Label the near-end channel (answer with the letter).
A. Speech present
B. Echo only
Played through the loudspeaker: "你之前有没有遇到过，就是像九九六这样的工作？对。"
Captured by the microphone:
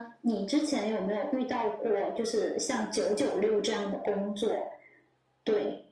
B